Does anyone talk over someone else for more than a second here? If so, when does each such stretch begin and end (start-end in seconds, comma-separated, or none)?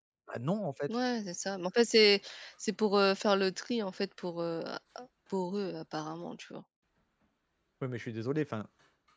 none